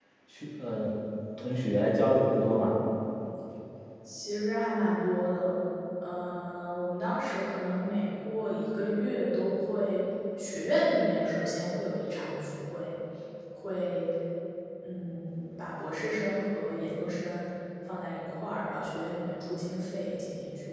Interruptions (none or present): none